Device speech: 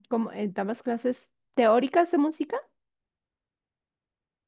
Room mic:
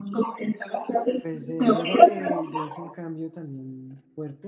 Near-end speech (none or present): present